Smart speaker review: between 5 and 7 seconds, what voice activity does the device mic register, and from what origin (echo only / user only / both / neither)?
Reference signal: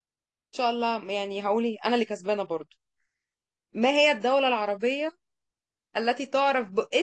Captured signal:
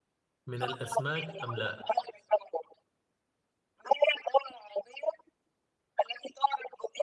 echo only